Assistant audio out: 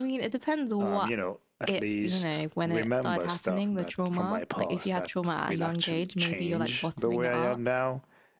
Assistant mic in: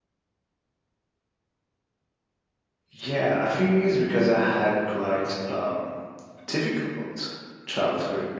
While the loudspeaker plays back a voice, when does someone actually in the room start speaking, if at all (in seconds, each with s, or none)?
2.9 s